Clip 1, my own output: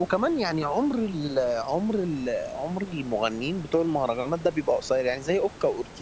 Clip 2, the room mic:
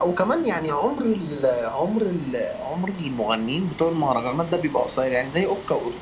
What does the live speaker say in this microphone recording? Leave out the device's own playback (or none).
none